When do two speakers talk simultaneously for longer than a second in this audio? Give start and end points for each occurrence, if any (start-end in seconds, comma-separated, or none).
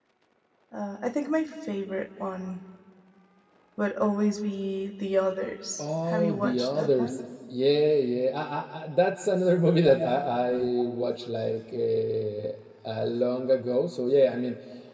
5.8-7.2